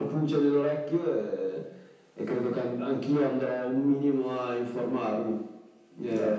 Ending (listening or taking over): listening